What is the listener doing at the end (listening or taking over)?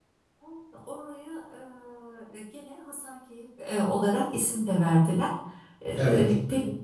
listening